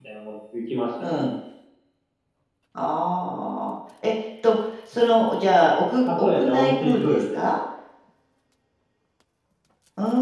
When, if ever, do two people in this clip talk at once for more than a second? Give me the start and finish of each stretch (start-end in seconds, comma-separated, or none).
6.0-7.4